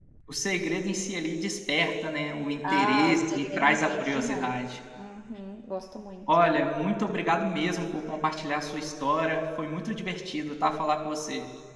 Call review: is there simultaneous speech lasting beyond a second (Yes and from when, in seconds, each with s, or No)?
Yes, from 2.6 s